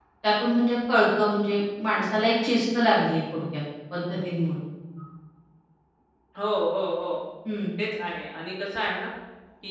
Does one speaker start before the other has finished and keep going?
No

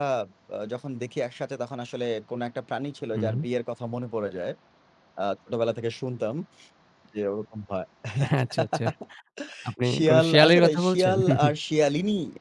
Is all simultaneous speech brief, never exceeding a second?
No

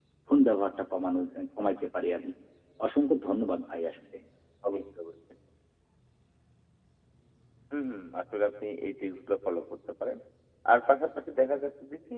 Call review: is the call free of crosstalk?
Yes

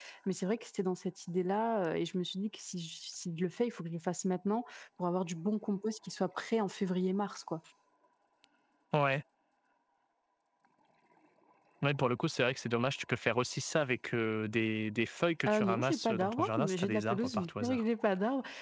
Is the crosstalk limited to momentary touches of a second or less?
No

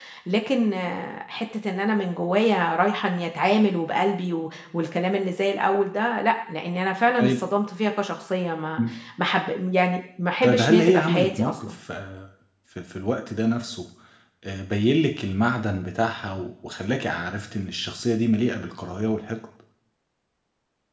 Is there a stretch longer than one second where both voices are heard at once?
Yes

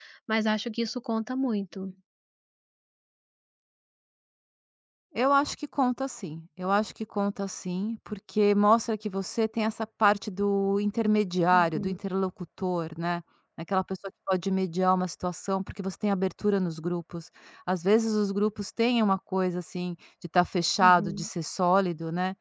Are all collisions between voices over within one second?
Yes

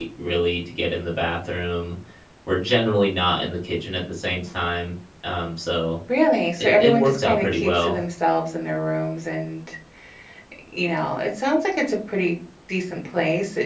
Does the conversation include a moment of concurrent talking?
Yes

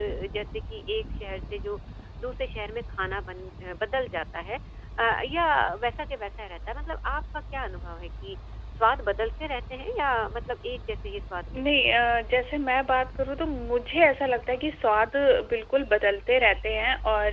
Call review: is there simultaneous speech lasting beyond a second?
No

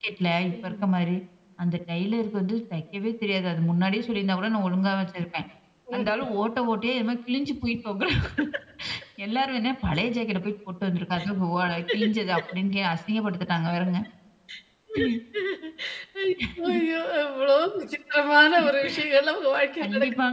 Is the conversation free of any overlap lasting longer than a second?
Yes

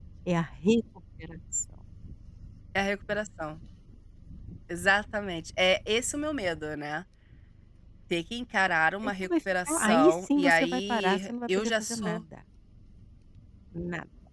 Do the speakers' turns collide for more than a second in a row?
Yes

